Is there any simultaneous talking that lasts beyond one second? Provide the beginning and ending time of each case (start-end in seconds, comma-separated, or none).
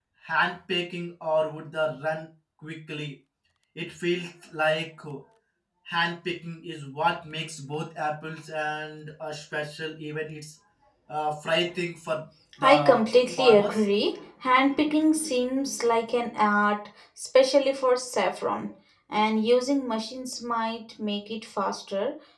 12.6-13.8